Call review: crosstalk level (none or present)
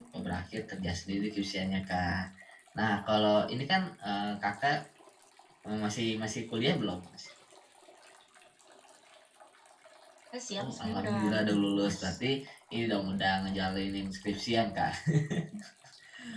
present